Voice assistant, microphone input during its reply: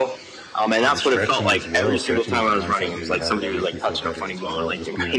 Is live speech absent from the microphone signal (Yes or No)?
No